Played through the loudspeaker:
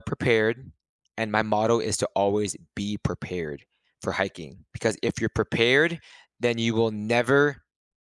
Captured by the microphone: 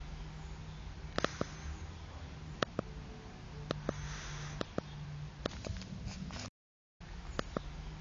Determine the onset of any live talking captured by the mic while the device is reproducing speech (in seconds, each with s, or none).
none